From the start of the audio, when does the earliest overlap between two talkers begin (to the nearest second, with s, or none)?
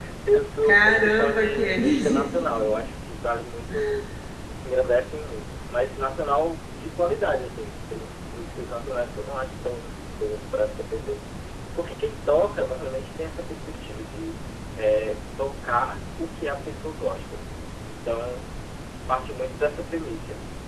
1 s